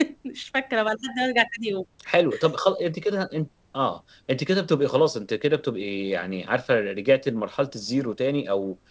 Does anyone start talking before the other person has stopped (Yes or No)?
No